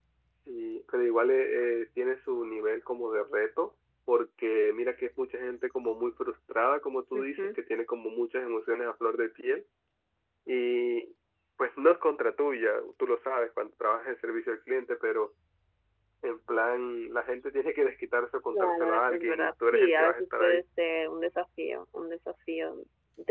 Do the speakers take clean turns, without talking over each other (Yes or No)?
No